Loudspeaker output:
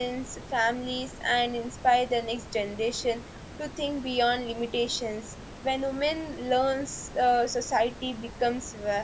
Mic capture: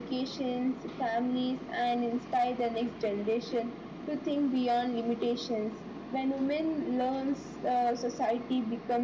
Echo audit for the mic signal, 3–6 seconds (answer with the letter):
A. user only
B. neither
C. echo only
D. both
C